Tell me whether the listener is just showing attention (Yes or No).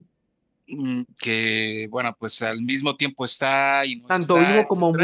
No